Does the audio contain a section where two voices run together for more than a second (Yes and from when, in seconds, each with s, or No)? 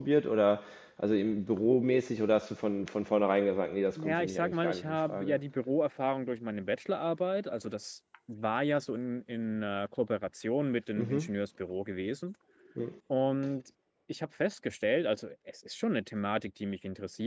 Yes, from 4.0 s